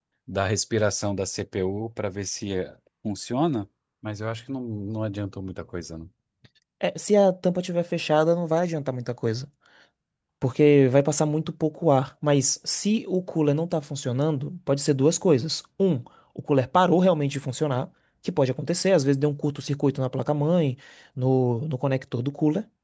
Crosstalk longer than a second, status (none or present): none